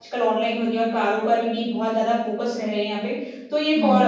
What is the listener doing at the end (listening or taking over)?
listening